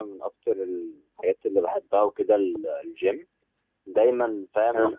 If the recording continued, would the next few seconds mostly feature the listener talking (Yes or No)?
No